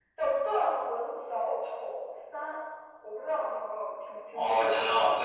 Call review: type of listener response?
taking over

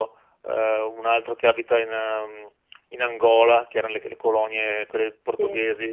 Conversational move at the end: listening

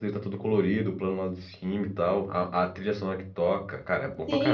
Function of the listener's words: taking over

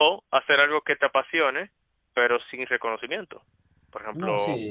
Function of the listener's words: taking over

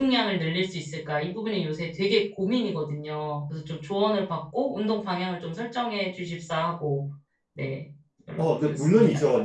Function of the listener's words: taking over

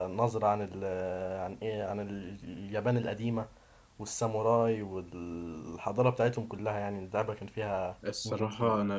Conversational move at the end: taking over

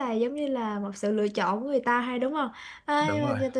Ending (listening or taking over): listening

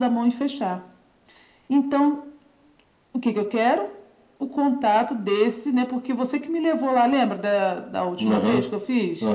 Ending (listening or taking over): taking over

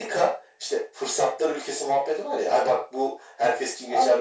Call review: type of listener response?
taking over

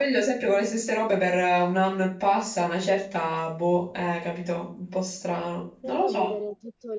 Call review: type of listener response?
taking over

